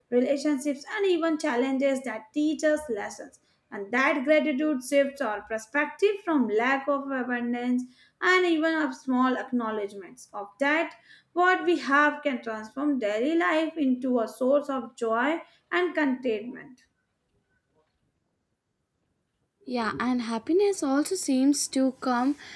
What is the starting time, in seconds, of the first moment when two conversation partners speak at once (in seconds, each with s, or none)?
none